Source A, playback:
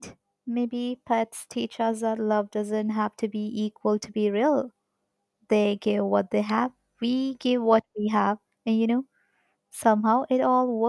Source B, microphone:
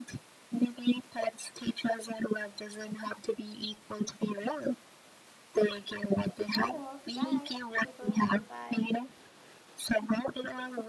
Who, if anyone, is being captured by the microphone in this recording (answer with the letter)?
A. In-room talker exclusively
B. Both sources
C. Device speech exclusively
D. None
B